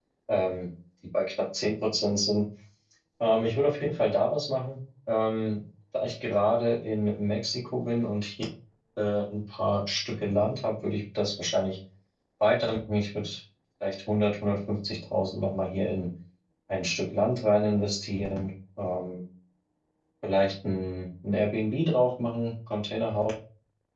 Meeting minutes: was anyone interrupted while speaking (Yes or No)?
No